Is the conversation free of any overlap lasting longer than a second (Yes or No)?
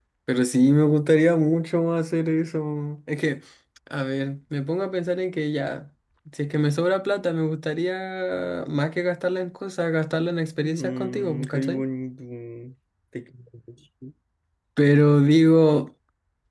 No